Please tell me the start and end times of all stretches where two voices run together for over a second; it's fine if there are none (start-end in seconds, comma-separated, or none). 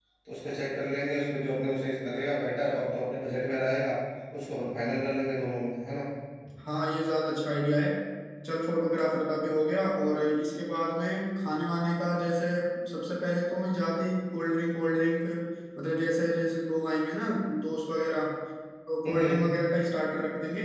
none